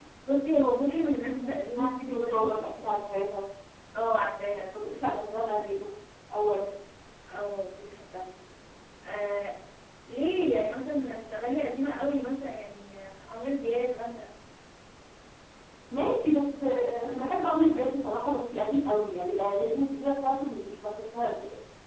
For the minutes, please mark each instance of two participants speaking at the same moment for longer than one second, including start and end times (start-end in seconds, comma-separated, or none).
1.2-2.6